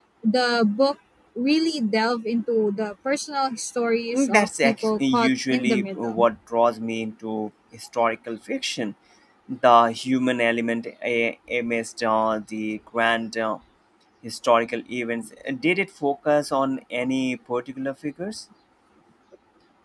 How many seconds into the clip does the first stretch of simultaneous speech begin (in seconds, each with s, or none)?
4.1 s